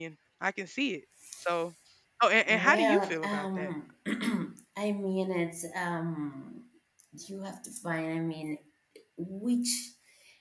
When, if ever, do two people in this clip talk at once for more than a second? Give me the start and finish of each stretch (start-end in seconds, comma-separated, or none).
2.5-3.7